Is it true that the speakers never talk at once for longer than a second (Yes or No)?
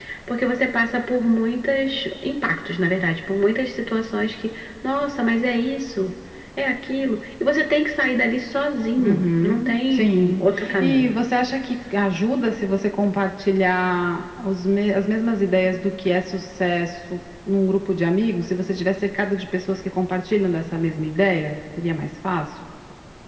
No